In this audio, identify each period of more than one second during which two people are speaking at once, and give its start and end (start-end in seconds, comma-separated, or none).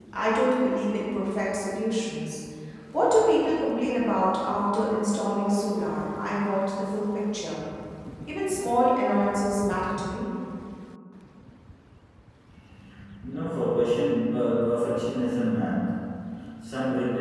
none